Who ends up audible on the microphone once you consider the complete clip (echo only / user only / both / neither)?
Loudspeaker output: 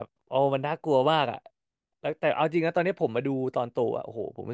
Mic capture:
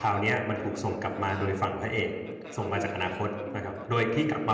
both